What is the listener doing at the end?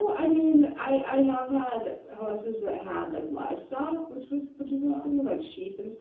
listening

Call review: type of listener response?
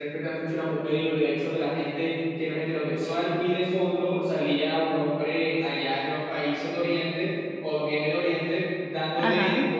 listening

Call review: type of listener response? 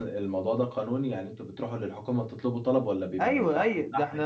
taking over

